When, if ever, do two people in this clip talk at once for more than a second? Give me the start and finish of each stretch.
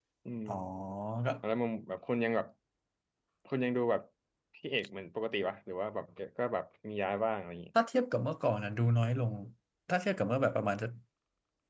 none

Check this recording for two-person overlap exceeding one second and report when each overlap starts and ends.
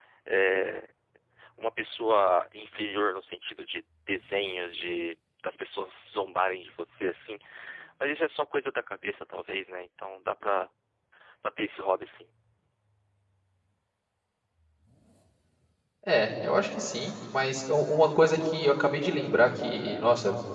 none

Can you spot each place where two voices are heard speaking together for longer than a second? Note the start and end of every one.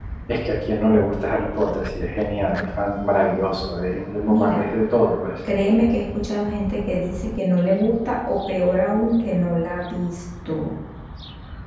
none

